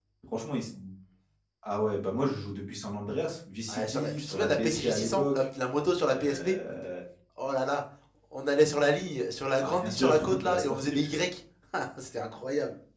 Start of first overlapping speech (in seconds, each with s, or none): 3.7 s